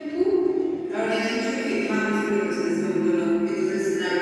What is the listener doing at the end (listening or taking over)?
listening